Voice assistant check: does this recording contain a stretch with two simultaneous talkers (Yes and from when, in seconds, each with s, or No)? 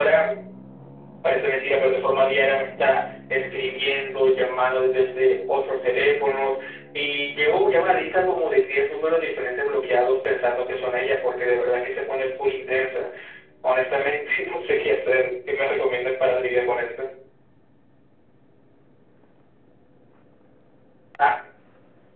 No